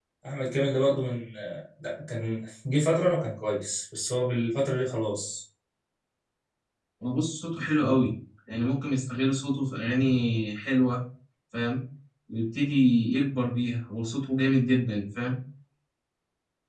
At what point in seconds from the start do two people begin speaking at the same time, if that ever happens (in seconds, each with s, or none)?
none